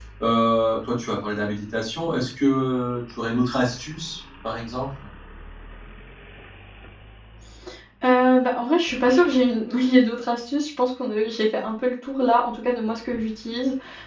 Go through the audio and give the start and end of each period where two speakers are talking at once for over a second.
none

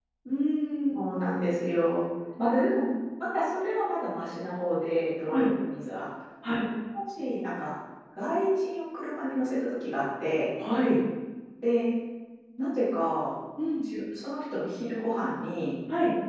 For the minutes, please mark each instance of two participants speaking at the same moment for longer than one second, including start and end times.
none

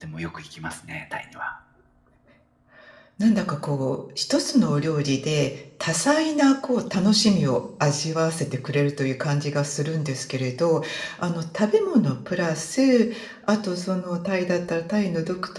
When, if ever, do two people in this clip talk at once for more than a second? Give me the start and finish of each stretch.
none

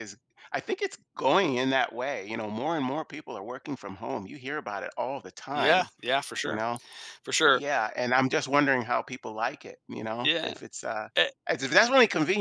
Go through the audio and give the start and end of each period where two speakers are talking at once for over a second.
none

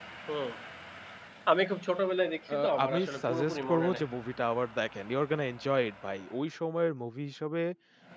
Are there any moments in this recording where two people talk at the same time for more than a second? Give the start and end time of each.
2.5-4.0

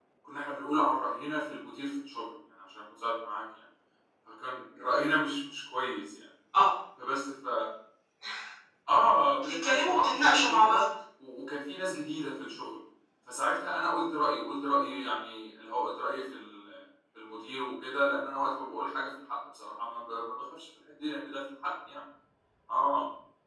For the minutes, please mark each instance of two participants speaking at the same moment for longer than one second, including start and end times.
9.4-10.8

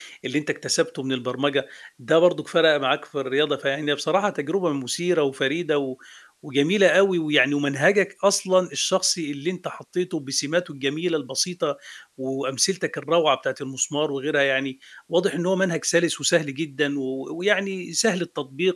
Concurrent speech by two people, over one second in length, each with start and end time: none

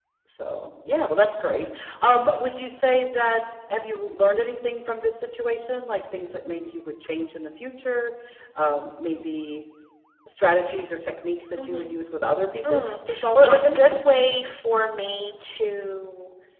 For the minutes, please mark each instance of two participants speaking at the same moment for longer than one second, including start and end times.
12.7-13.9

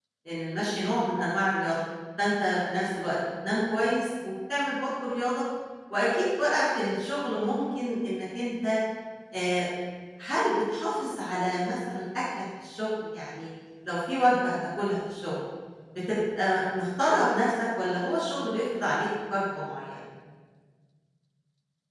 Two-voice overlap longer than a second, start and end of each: none

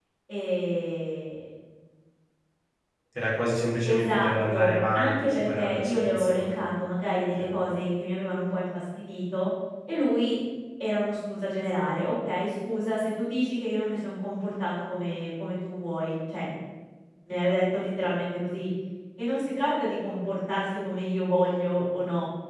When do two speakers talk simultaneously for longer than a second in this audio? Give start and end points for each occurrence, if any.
3.9-6.6

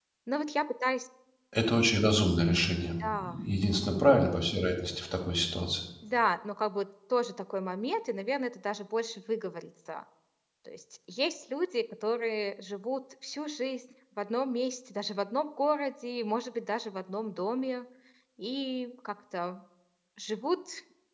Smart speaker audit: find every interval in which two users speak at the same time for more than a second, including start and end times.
none

